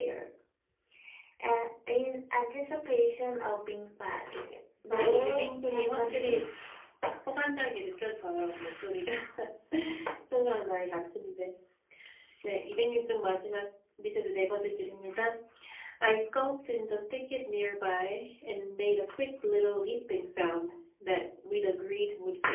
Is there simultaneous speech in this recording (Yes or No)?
Yes